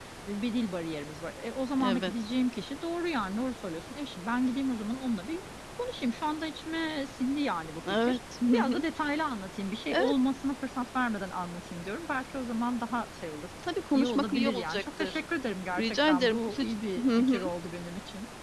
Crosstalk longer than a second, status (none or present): present